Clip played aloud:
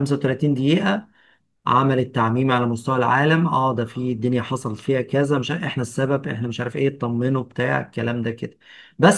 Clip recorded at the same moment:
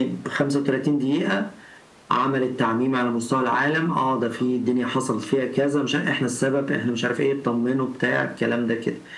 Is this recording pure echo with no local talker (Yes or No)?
Yes